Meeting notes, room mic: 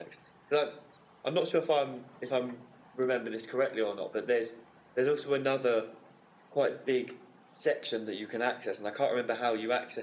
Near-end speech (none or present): present